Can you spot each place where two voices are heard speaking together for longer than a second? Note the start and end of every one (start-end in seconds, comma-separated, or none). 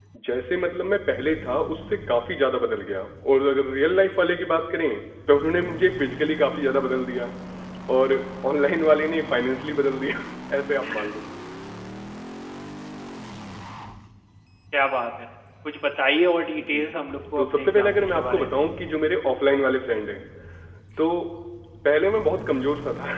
17.4-18.6